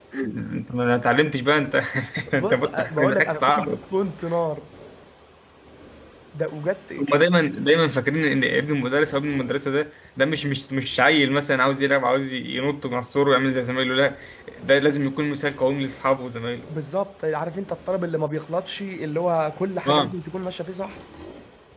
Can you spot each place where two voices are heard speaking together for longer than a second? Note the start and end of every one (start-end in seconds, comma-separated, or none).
2.4-3.8